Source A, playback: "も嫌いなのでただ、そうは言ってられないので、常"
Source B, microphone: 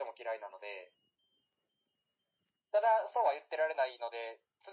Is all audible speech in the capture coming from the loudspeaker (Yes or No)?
Yes